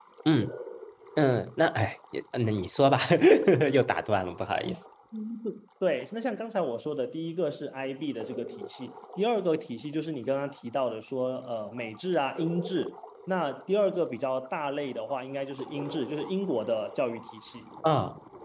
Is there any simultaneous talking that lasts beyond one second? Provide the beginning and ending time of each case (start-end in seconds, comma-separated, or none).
none